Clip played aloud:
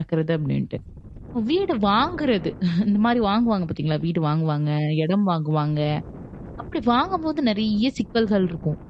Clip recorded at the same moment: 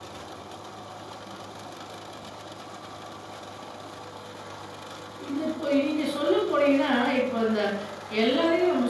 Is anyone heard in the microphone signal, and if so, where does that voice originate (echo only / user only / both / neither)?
user only